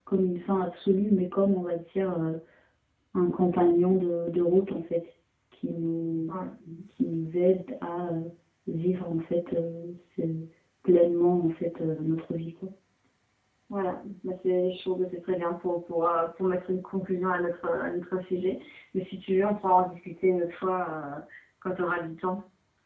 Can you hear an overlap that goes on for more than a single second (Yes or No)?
No